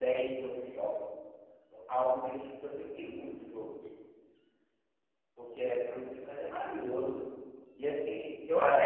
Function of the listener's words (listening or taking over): taking over